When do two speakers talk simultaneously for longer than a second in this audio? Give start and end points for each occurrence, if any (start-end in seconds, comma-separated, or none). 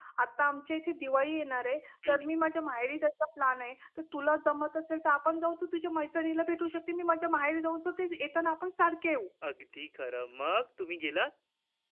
none